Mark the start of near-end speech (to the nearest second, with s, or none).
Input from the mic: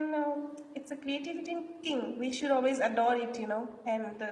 none